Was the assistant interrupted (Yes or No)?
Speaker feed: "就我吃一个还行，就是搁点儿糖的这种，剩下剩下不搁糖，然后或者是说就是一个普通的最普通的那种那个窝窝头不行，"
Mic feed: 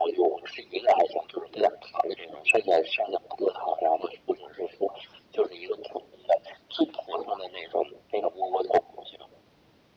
No